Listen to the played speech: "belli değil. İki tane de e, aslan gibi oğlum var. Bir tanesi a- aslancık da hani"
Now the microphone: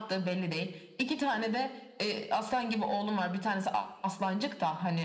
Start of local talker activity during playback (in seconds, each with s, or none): none